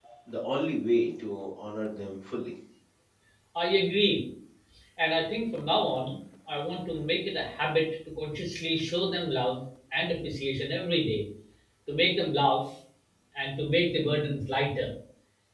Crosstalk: none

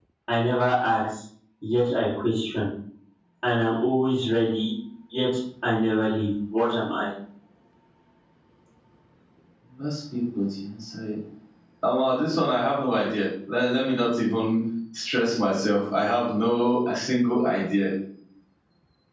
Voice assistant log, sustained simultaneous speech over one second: none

